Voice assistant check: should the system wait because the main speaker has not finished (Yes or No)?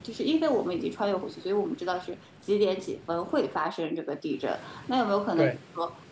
Yes